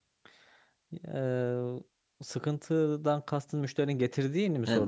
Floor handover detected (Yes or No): Yes